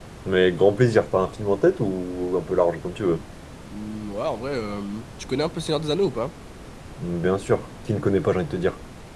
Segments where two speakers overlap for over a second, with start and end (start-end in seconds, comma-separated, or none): none